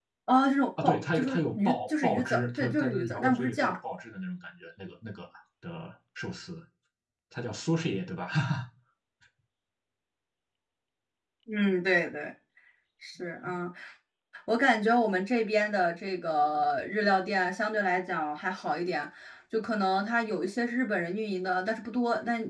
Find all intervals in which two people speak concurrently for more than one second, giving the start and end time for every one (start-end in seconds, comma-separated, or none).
0.8-3.8